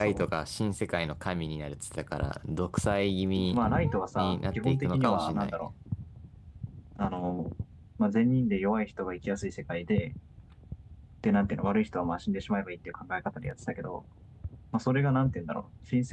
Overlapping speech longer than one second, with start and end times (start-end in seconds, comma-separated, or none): 4.2-5.6